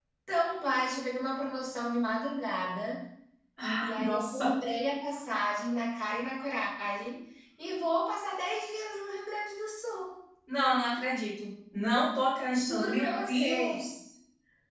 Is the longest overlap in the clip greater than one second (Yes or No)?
Yes